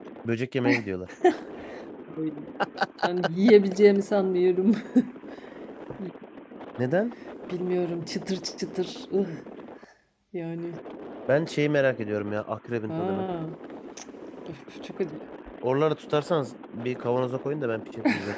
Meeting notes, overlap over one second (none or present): none